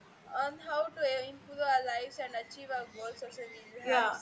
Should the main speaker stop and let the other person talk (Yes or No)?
Yes